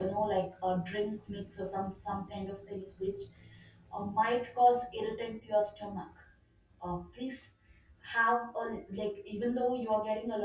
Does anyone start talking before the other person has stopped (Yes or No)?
No